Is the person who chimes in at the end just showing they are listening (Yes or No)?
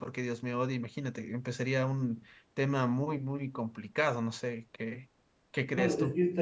No